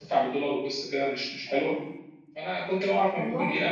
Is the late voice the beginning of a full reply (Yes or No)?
No